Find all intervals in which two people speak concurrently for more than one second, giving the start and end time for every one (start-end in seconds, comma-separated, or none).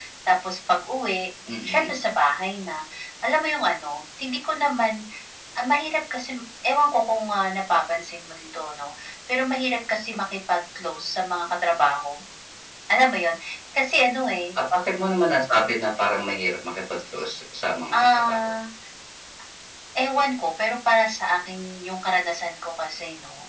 none